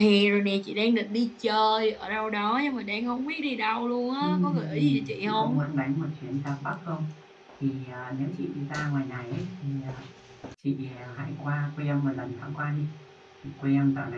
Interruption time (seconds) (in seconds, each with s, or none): 4.2 s